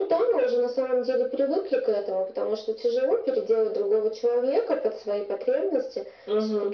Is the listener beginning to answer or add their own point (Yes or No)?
No